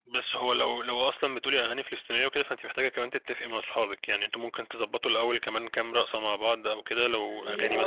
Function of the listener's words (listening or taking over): listening